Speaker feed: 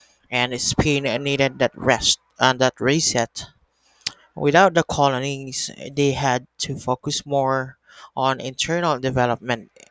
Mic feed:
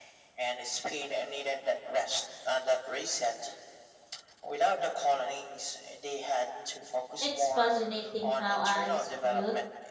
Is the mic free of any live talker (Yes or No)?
No